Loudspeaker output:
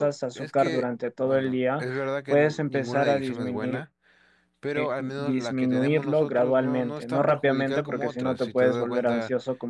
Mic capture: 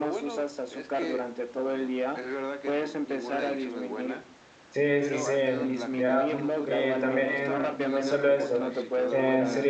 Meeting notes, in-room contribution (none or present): present